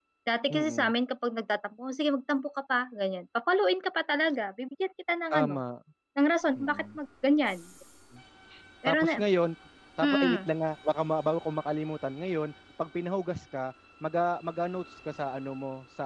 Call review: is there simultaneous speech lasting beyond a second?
No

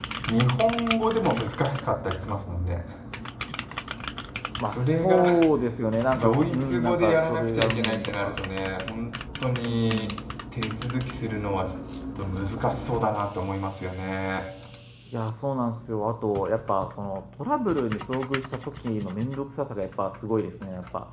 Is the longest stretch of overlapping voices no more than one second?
No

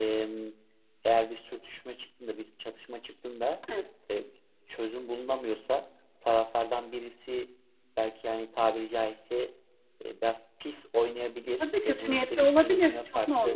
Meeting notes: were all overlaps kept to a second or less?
No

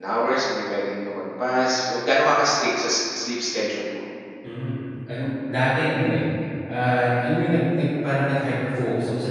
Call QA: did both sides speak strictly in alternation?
Yes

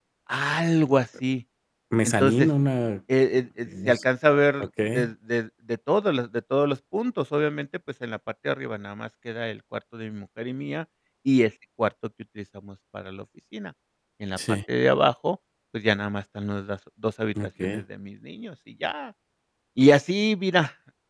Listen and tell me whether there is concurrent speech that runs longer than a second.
No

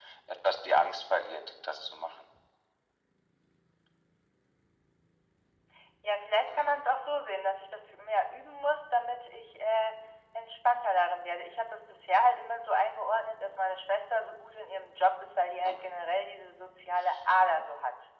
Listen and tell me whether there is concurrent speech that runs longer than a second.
No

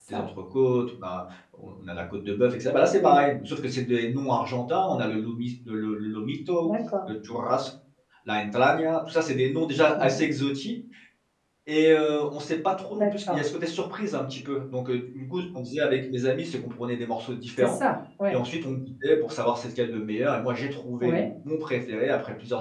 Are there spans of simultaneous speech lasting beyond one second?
No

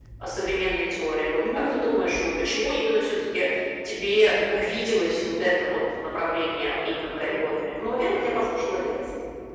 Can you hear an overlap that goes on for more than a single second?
No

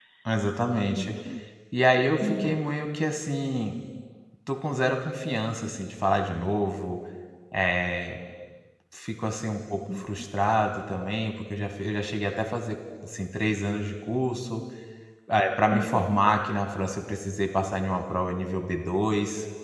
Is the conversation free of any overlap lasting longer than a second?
Yes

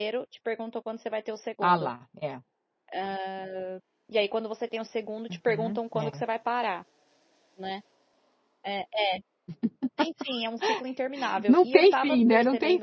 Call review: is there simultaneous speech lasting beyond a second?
Yes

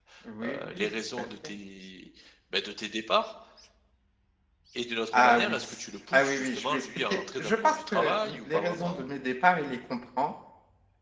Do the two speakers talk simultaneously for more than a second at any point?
Yes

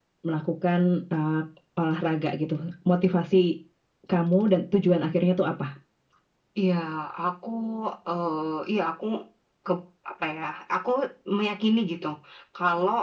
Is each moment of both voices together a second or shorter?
Yes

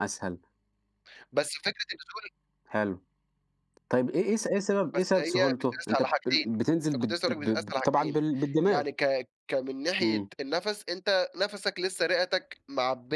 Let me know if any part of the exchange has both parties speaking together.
Yes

